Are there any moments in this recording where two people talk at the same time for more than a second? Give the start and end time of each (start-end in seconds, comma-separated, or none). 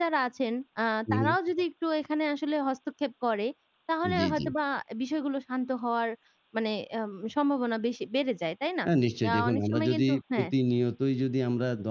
9.3-10.5